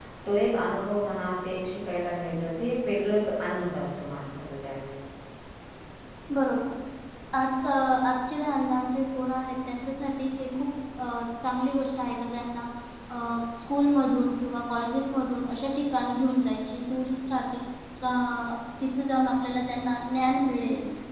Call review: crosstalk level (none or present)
none